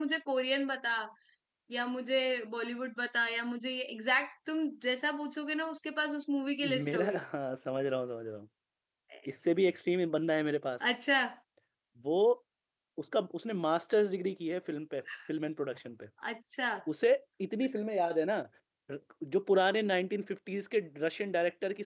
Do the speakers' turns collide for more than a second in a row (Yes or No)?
No